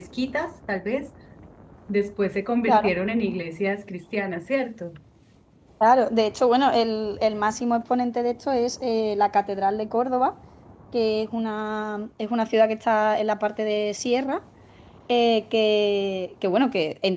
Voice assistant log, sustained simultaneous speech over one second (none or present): none